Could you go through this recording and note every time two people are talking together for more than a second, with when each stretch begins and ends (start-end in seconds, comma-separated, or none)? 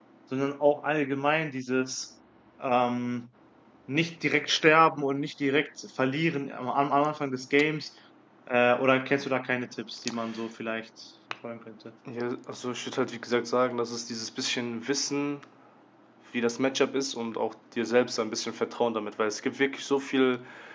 none